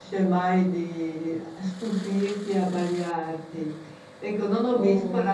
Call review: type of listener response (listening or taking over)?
listening